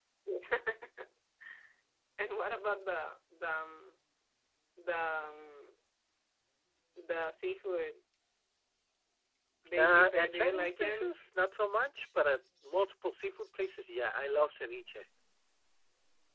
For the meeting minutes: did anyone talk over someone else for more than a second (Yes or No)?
Yes